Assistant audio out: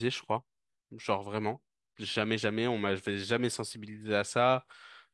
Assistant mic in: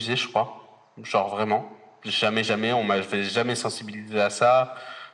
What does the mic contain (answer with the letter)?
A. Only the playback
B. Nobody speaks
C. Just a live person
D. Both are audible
A